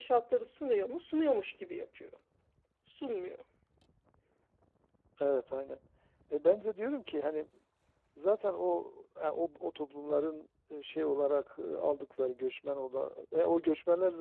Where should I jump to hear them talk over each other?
none

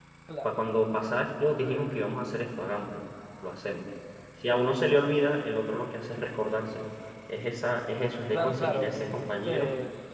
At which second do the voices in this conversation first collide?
8.3 s

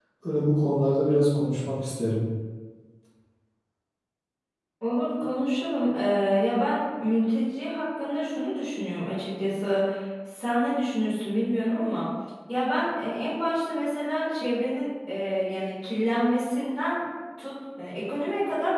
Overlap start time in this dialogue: none

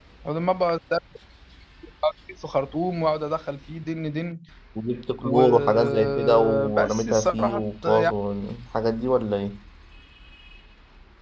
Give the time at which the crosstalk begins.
5.2 s

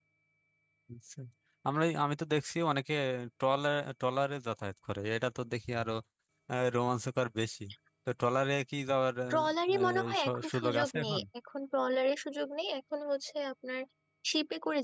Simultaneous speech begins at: 9.3 s

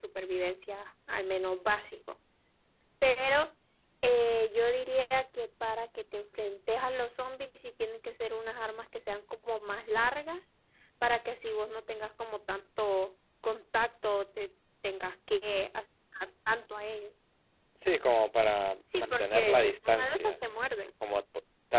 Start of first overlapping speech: 18.9 s

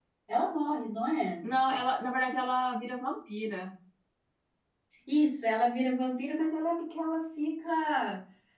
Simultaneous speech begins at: none

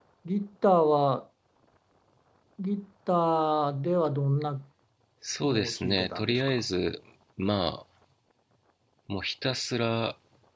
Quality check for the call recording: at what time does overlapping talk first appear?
5.5 s

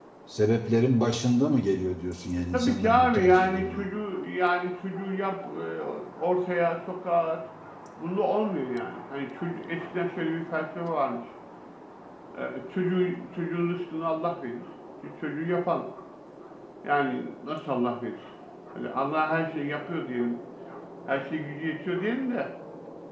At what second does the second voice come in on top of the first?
2.5 s

